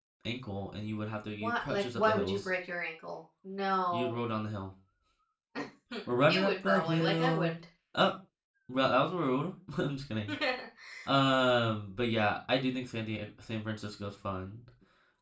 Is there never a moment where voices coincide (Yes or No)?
No